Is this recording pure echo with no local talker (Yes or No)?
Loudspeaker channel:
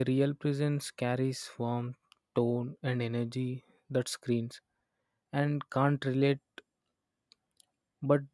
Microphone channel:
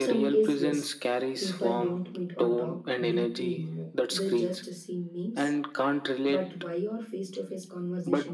No